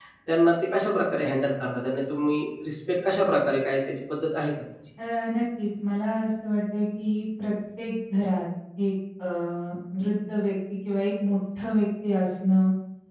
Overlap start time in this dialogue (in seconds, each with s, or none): none